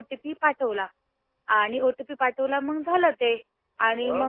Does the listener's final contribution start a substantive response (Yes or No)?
No